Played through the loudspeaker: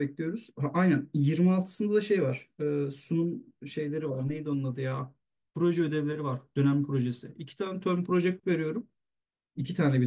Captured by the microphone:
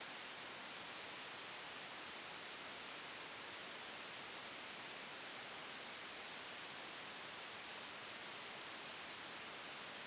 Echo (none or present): none